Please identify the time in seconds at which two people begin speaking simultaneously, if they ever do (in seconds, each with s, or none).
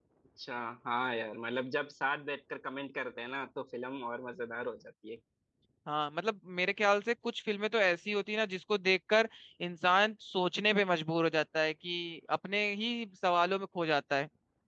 none